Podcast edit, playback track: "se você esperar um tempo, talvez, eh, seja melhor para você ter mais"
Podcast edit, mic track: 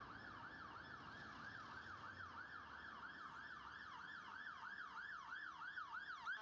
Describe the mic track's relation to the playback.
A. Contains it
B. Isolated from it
B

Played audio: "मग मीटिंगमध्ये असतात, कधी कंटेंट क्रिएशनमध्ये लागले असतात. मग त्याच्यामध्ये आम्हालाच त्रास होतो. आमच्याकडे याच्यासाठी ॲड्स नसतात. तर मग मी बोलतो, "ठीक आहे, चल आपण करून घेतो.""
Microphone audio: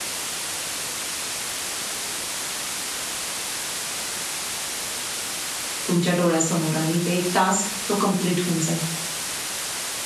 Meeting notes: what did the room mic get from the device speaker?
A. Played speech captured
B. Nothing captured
B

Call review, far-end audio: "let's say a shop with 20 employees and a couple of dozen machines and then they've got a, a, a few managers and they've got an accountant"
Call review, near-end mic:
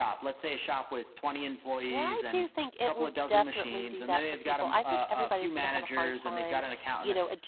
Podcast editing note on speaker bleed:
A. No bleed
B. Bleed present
B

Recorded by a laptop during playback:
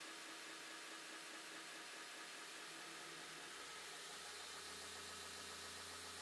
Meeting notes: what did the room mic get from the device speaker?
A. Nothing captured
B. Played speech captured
A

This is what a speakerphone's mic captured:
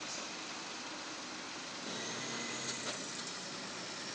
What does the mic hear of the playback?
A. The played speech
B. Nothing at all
B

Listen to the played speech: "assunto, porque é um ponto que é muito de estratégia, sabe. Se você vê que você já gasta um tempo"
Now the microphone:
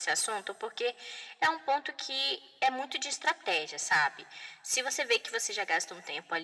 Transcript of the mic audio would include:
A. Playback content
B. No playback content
A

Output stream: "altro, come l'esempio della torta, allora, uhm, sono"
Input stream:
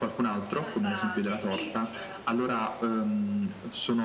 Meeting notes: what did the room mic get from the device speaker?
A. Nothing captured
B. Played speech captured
B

